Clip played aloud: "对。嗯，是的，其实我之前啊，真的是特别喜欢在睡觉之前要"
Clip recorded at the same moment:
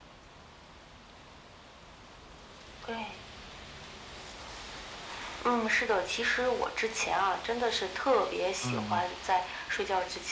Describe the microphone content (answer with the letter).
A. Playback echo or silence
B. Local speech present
B